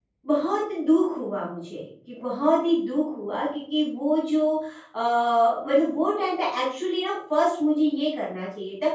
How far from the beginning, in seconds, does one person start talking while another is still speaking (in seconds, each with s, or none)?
none